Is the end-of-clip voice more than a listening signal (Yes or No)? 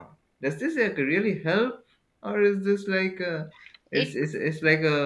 No